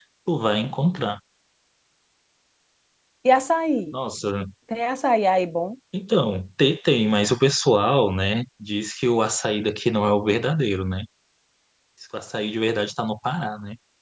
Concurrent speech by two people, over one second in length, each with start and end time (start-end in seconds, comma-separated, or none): none